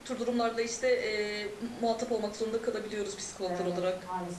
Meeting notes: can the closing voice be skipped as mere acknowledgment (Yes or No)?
No